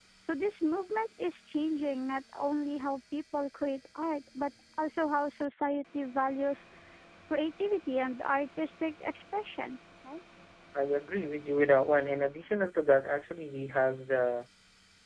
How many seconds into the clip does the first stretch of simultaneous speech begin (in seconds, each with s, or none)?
none